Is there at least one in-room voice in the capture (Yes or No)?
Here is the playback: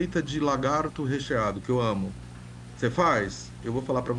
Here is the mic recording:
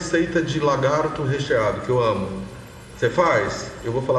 No